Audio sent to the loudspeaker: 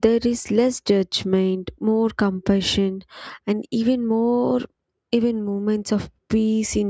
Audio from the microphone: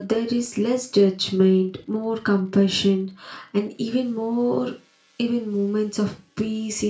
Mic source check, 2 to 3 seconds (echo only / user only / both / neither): echo only